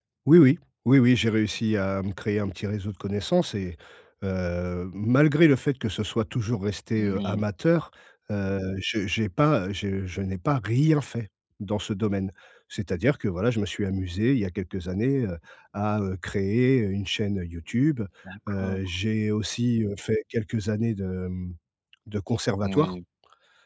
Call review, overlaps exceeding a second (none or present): none